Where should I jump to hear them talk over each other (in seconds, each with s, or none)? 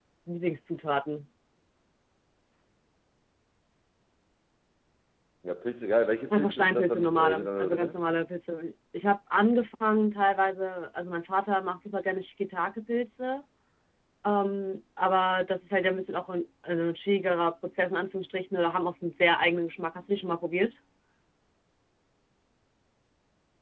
6.3 s